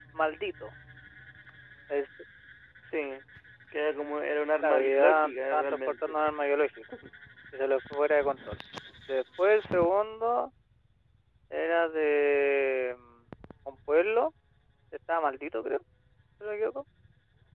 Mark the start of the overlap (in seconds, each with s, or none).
4.6 s